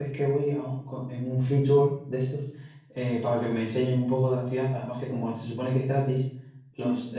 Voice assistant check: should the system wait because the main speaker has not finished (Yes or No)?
Yes